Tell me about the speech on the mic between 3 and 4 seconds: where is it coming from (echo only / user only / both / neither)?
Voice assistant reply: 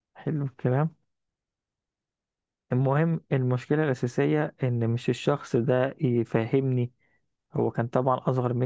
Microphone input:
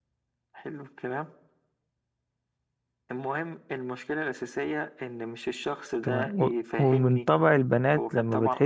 echo only